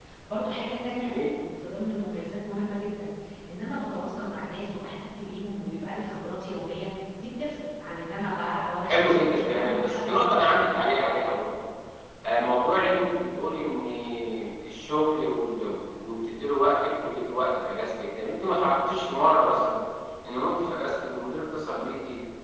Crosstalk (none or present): present